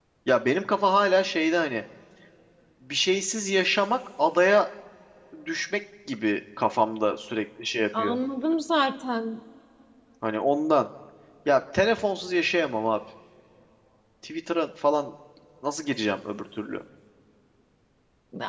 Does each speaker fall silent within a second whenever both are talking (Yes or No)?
Yes